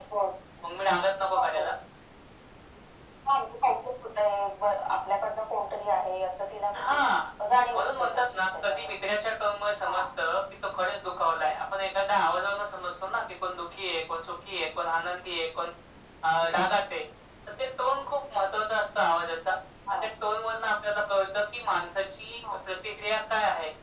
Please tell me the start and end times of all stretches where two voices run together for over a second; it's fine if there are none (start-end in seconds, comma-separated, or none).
7.7-9.1